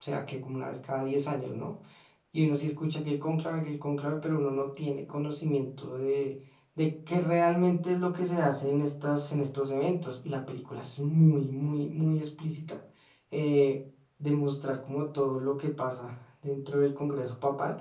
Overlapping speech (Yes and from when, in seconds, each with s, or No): No